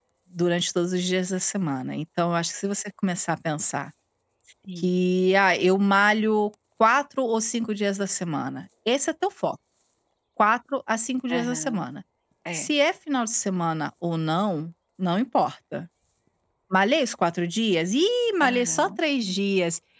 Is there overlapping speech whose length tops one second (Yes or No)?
No